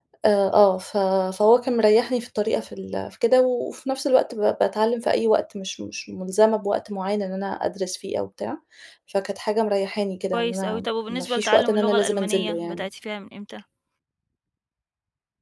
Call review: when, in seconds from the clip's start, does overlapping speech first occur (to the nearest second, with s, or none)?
10 s